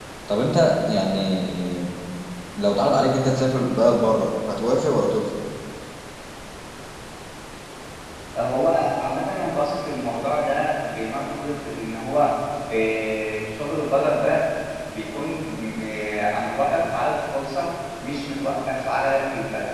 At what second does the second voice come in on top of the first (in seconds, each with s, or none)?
none